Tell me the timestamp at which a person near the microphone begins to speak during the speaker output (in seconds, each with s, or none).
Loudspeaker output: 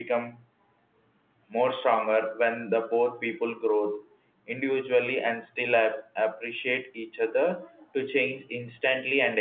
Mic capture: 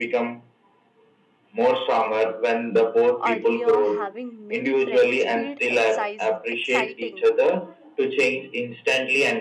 3.2 s